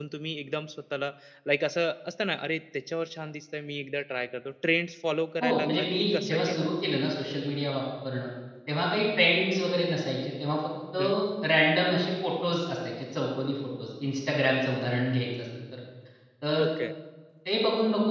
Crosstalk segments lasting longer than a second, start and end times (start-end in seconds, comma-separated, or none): 5.4-6.7